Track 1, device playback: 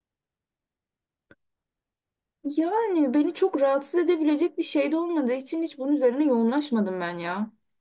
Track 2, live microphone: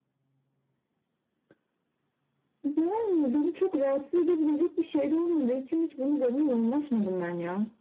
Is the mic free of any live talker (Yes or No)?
Yes